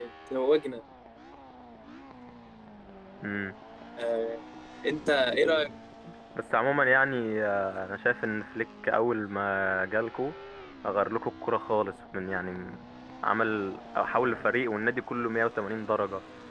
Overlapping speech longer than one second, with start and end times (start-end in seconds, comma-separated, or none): none